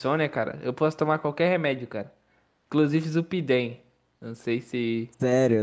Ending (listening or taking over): taking over